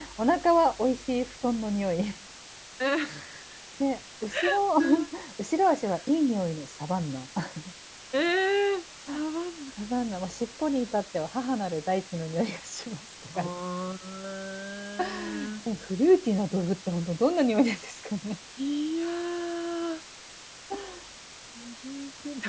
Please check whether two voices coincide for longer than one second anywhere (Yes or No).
No